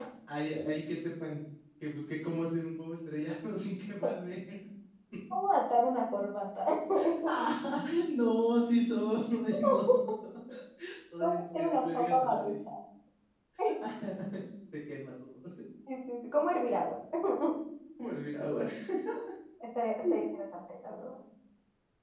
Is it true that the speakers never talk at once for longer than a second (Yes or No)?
No